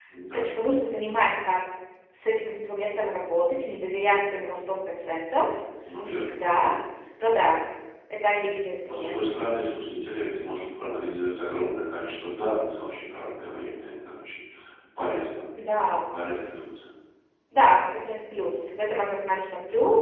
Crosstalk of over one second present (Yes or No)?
No